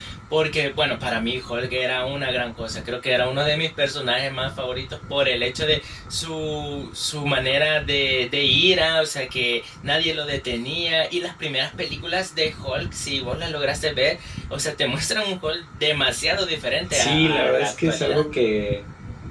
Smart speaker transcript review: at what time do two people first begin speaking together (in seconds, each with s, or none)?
16.9 s